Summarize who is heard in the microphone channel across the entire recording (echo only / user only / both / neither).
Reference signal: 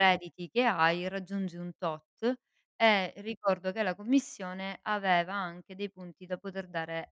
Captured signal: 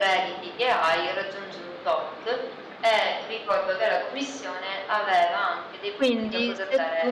both